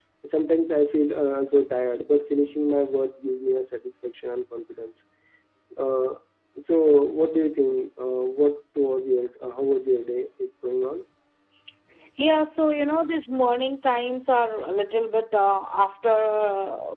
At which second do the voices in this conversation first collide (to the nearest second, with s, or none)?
none